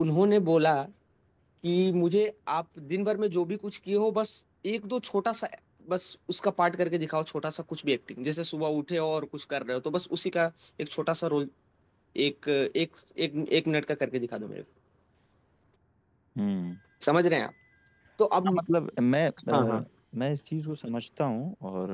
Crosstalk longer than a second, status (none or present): none